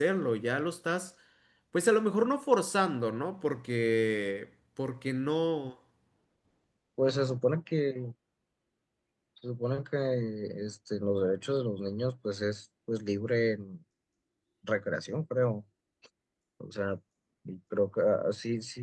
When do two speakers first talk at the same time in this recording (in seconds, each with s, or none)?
none